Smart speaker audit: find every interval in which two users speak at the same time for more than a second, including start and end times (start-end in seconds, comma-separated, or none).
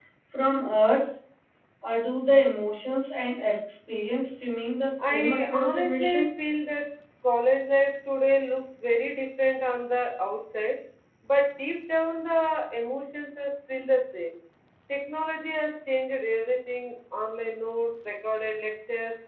5.0-6.3